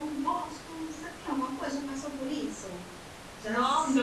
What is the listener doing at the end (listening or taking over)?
taking over